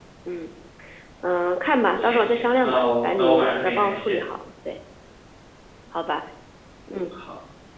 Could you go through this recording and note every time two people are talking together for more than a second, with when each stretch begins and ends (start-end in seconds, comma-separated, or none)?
2.0-4.2